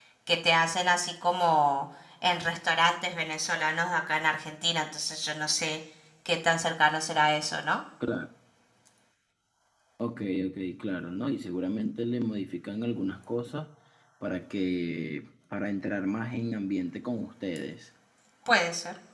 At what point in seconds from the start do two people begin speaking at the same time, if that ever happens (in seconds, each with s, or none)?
none